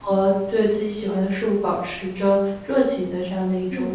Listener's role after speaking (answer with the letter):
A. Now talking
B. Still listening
A